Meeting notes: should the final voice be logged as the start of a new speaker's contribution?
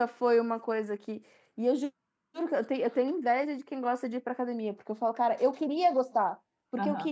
No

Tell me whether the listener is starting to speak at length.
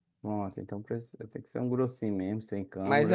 Yes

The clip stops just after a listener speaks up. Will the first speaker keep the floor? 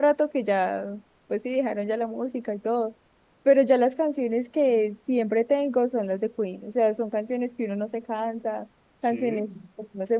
Yes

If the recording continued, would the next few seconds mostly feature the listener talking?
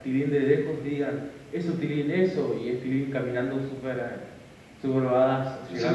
Yes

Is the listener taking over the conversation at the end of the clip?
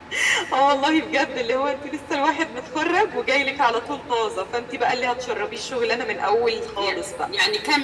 Yes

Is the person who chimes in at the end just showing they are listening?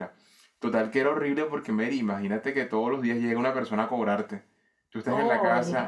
Yes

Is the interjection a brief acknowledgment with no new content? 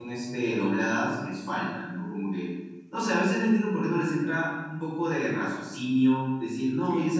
Yes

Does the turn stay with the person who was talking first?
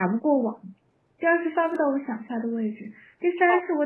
Yes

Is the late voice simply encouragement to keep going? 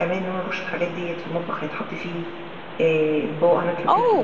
No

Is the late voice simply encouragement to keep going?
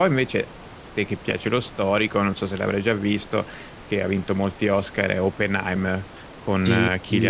No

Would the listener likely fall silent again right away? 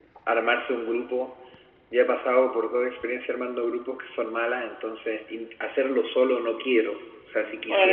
No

